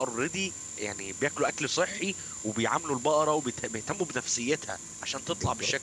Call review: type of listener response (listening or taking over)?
taking over